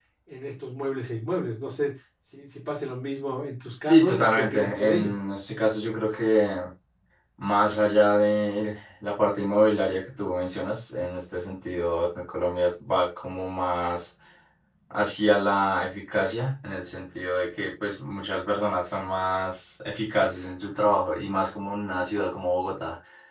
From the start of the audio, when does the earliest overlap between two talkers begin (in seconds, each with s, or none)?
3.8 s